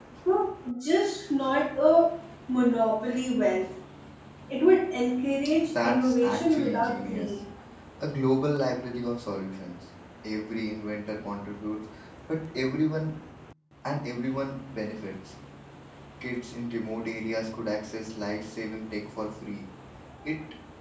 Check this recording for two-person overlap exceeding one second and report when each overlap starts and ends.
5.6-7.3

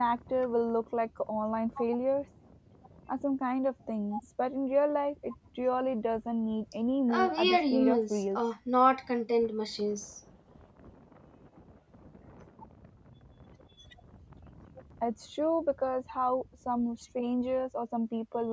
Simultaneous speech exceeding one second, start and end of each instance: 7.1-8.4

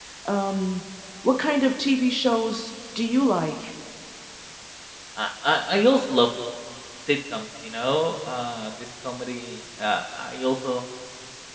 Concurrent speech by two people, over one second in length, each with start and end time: none

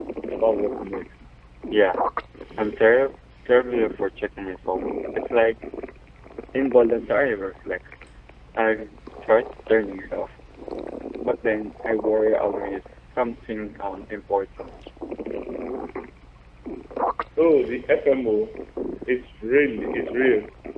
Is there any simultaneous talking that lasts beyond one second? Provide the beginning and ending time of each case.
none

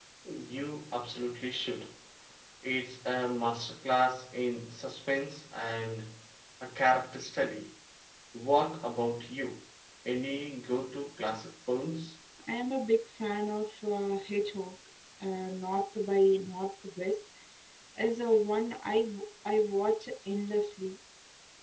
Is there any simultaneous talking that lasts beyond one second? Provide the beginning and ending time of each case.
none

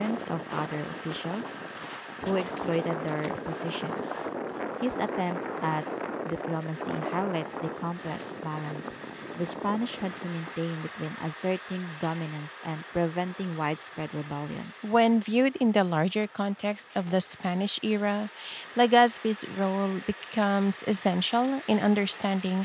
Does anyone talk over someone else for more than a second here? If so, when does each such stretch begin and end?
none

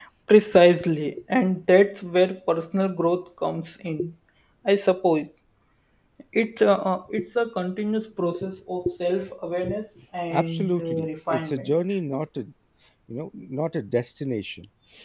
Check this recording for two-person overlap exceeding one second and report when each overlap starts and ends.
10.3-11.7

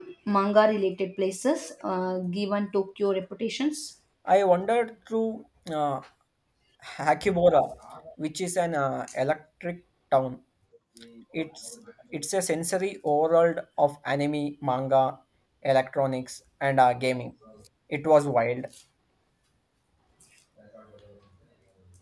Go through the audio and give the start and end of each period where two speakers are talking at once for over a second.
none

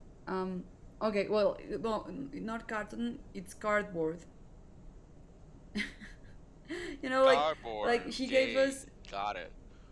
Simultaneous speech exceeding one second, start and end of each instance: 7.2-8.8

